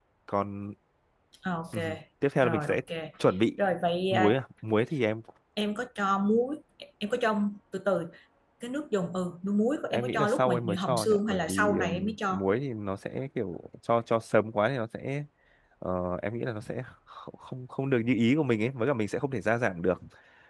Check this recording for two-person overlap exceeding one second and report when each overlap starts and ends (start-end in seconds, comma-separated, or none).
9.9-12.4